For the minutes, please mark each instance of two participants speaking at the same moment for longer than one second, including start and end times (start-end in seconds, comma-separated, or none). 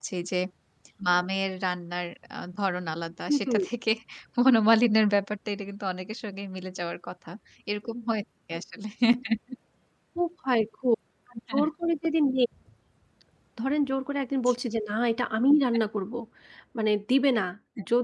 none